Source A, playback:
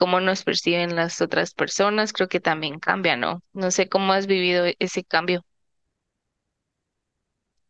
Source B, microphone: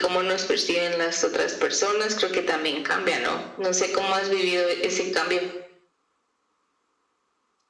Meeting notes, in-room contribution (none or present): none